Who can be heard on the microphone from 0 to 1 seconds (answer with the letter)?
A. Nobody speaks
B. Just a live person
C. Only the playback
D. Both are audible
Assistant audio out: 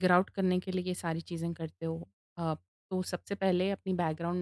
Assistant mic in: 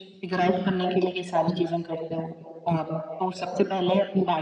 C